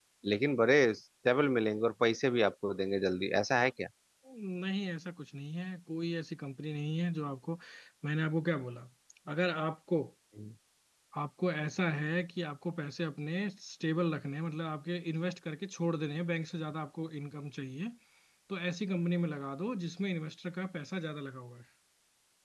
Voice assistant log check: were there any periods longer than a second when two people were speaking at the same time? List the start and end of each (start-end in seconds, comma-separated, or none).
none